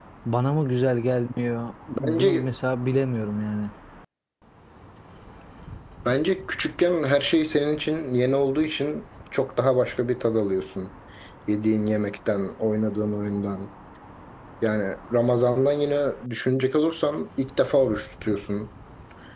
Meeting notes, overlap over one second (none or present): none